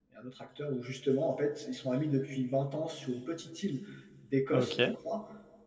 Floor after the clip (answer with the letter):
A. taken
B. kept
B